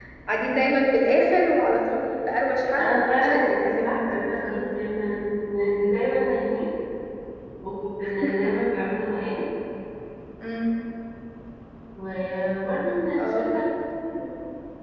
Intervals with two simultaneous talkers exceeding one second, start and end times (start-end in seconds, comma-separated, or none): 2.8-4.6